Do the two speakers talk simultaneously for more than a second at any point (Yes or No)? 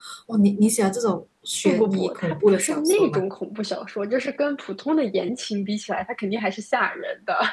Yes